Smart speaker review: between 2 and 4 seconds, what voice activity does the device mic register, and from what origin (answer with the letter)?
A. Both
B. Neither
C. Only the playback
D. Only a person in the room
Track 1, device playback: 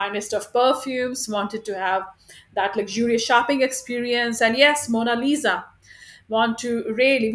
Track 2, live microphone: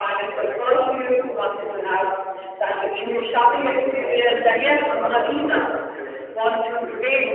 A